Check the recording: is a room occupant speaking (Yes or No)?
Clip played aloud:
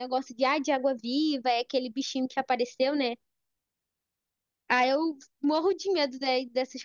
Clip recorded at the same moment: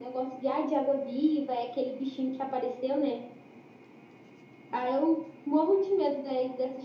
No